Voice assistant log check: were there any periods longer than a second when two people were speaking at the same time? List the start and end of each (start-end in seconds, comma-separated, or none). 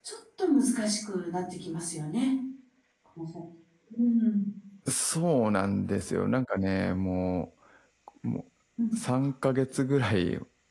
none